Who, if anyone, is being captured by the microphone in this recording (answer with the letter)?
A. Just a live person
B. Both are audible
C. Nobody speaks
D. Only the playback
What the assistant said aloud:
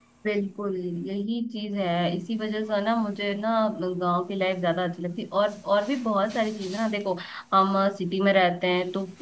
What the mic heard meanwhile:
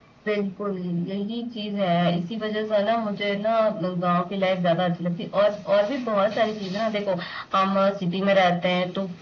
D